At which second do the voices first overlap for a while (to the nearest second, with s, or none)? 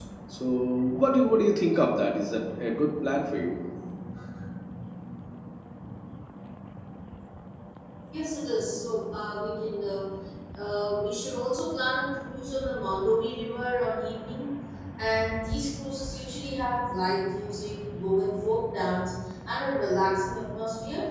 none